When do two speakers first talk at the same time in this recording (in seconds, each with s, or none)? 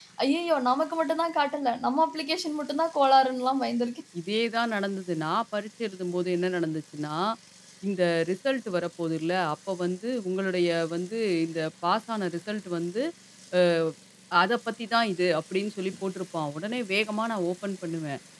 none